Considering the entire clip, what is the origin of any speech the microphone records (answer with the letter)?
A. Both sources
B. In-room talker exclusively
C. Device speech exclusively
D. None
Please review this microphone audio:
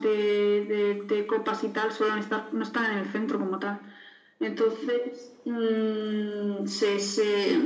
C